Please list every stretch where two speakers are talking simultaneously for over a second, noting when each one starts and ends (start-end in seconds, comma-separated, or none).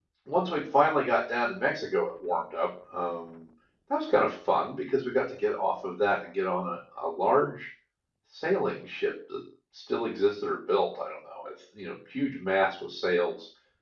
none